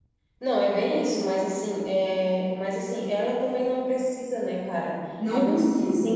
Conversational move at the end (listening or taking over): listening